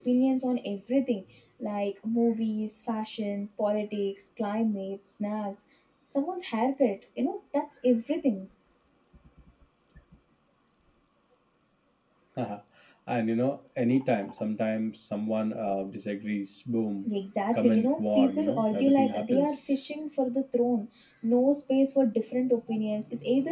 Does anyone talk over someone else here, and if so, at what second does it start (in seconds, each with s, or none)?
17.5 s